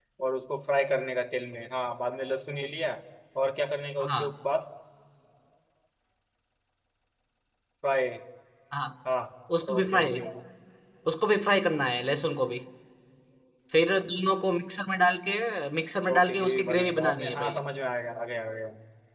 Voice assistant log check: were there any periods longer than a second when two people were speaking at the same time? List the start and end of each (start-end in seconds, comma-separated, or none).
16.1-17.6